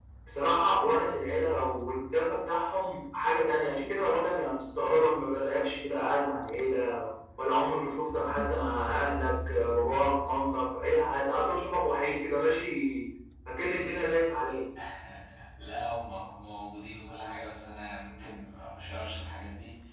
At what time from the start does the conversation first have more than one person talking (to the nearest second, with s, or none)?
none